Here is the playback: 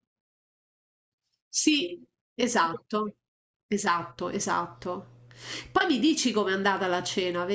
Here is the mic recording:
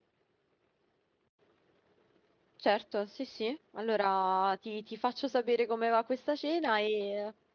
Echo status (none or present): none